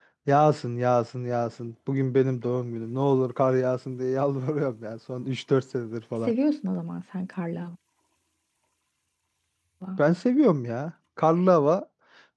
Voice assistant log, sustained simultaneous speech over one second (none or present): none